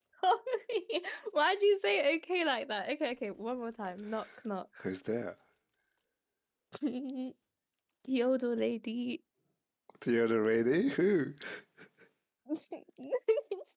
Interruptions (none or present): none